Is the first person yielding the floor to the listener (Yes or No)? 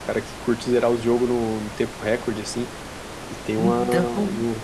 No